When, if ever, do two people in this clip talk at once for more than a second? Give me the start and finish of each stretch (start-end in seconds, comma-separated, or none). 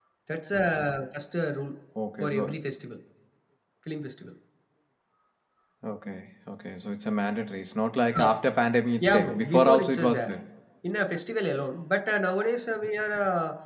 9.0-10.3